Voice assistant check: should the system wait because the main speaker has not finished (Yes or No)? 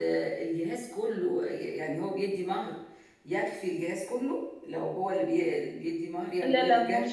No